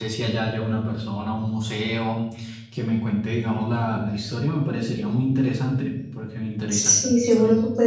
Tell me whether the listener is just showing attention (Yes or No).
No